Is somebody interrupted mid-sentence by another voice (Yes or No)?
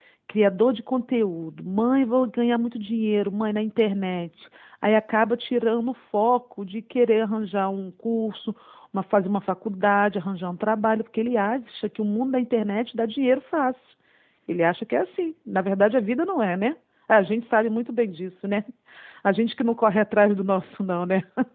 No